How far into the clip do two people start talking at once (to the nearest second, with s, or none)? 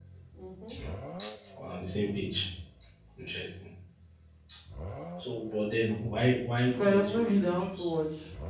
7 s